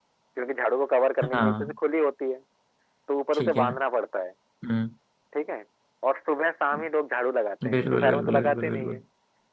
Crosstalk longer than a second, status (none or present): present